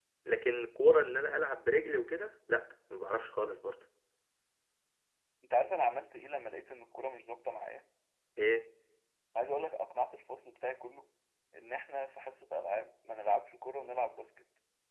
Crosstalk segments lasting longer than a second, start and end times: none

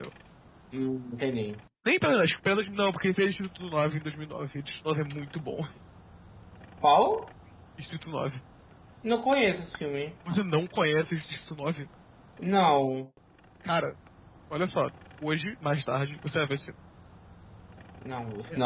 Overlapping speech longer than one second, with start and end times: none

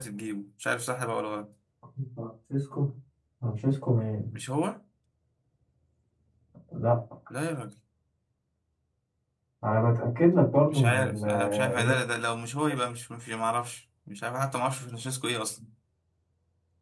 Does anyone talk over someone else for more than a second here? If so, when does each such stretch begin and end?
10.7-12.0

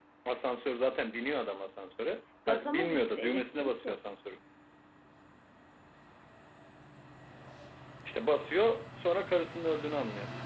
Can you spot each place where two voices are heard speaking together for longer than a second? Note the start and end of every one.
2.5-4.0

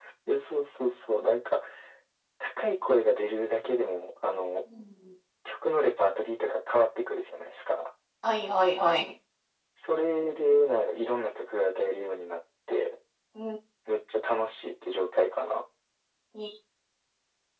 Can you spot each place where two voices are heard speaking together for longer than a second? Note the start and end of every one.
none

